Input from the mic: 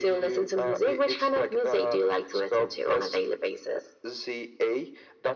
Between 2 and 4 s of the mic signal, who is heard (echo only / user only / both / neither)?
echo only